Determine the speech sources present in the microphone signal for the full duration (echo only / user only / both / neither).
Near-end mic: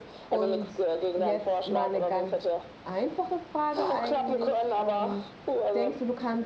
both